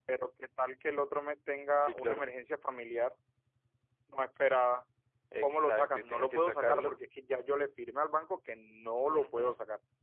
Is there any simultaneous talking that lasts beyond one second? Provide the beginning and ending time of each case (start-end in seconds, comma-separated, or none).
5.4-7.0